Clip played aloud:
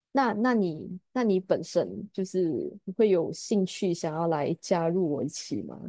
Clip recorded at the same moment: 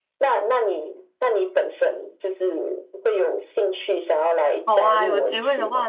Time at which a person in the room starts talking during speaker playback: 4.6 s

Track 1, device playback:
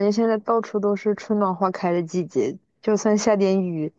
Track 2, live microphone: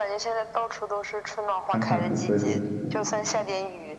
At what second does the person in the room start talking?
1.6 s

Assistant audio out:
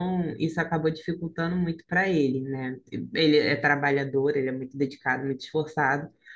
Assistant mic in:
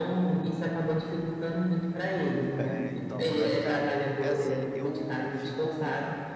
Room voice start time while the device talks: 2.6 s

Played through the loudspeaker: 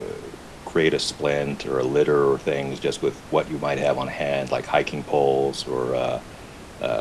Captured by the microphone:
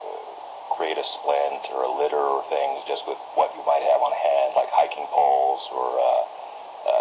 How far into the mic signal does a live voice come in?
none

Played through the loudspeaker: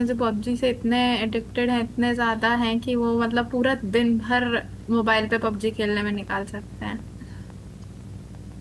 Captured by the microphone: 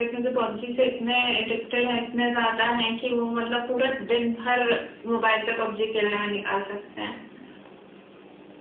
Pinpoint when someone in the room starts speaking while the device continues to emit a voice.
none

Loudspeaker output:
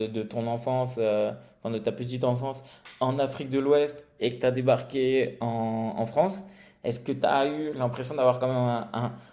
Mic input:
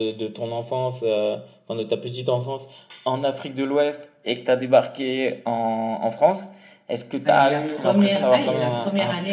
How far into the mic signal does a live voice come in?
7.2 s

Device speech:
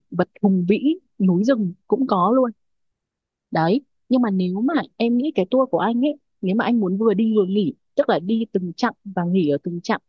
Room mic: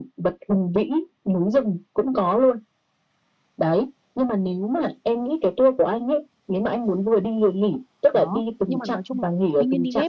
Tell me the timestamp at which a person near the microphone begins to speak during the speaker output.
8.1 s

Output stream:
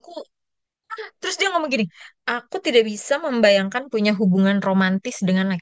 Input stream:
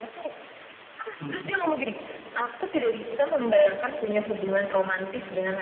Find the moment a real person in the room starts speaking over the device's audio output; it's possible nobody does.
1.2 s

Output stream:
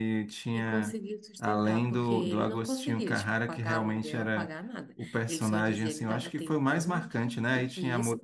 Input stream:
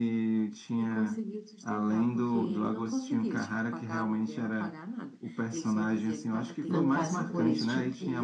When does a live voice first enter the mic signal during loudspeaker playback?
6.7 s

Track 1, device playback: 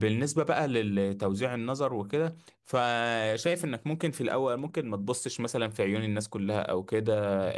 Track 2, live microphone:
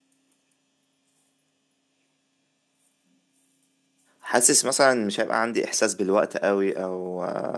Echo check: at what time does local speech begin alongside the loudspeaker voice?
4.2 s

